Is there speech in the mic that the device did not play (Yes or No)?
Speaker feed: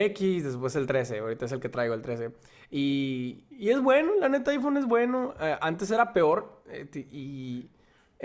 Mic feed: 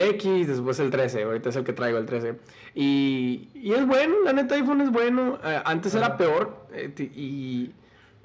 Yes